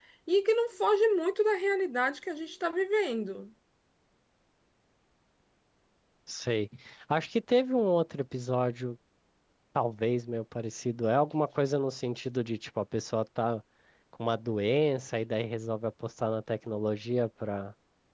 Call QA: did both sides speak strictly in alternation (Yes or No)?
Yes